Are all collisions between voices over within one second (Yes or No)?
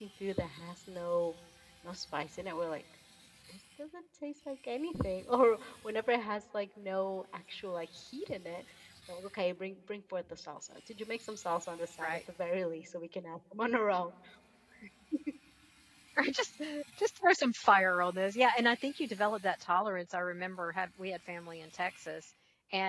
Yes